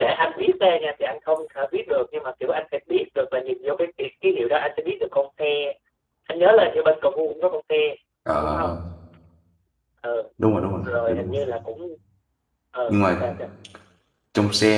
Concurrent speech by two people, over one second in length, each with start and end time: none

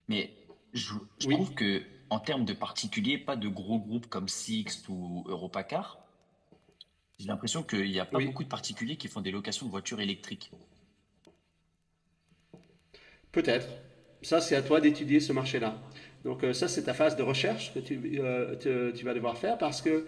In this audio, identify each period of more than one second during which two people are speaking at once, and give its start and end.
none

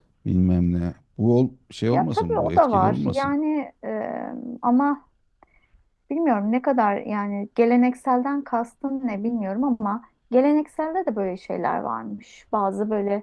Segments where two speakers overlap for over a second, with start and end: 1.9-3.3

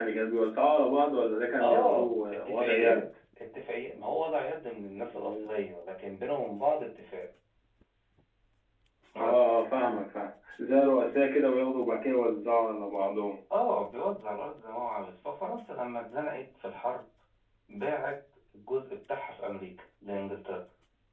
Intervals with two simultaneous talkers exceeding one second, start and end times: 1.6-3.0

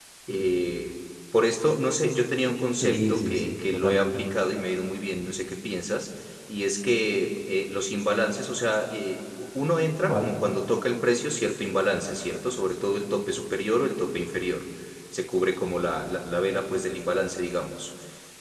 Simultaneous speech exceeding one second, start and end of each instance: 2.8-4.2

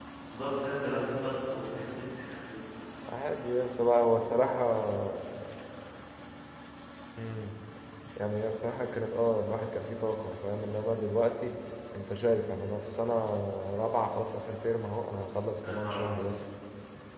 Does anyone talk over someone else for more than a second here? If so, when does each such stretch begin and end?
none

